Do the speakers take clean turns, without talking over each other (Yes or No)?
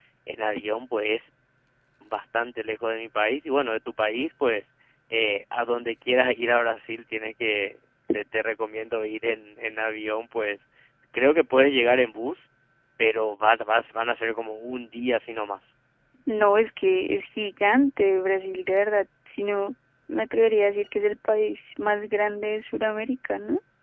Yes